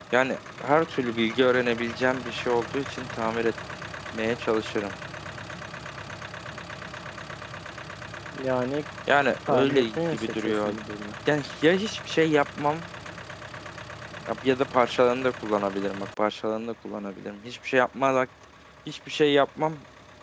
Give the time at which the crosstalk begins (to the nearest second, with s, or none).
9 s